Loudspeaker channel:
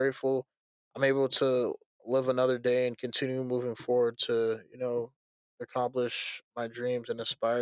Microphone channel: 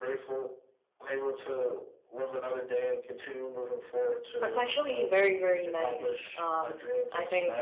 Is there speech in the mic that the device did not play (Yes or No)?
Yes